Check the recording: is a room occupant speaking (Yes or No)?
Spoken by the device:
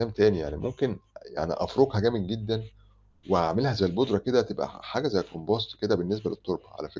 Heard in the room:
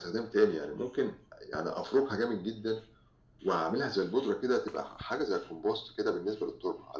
No